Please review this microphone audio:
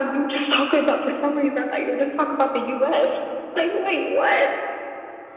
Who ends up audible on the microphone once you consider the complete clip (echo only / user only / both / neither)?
echo only